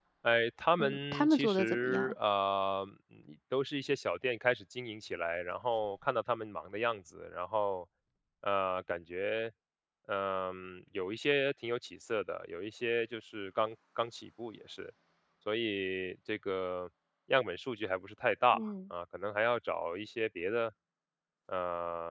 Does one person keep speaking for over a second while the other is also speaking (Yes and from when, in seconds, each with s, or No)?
Yes, from 0.8 s